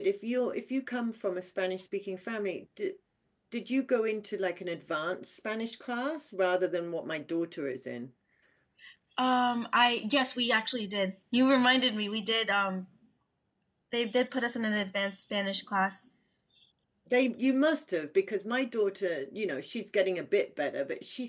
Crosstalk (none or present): none